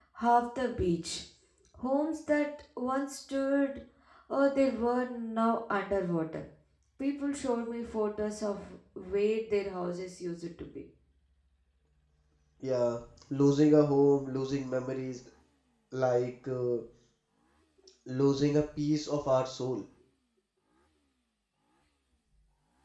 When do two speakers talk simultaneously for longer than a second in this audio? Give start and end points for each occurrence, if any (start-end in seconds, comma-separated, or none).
none